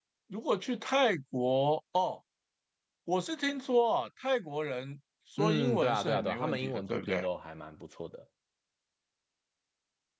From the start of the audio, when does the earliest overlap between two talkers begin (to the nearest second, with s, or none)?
5 s